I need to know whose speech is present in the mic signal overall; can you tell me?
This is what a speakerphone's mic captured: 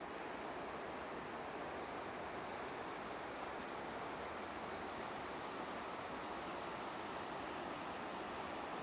neither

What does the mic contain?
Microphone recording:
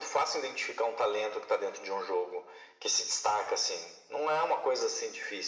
echo only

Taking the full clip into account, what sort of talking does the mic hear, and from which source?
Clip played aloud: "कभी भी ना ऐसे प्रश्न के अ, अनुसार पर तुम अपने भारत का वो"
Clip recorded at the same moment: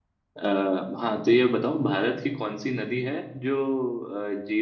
user only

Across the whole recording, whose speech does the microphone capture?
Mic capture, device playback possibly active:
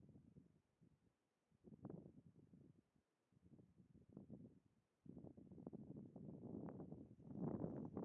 neither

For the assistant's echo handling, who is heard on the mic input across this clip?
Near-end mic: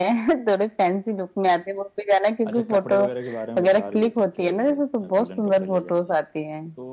both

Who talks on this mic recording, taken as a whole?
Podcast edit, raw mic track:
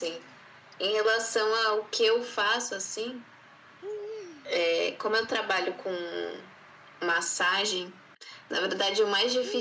echo only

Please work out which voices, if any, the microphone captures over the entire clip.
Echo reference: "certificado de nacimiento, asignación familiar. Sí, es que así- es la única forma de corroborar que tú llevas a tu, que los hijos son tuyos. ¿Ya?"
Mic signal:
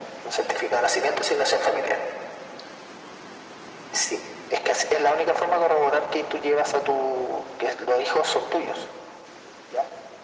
echo only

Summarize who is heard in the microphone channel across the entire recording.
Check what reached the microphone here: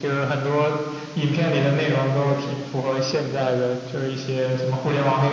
both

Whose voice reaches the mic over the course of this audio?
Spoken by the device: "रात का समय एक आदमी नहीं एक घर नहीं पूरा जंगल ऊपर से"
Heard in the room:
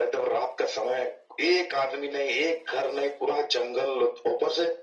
echo only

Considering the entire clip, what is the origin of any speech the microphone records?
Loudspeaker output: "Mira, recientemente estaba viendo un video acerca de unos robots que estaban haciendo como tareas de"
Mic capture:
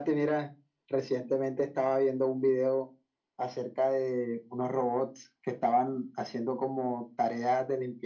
echo only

